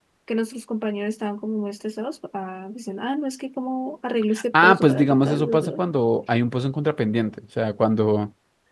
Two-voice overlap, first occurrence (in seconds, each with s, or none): 4.5 s